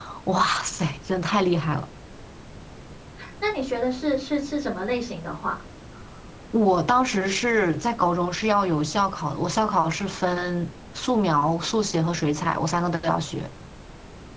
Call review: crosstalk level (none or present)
none